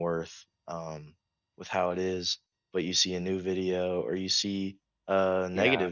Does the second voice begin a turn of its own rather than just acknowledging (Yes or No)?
No